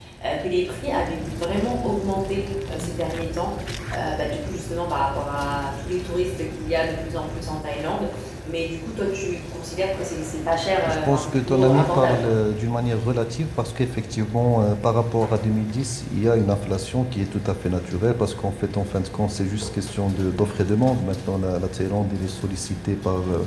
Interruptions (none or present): present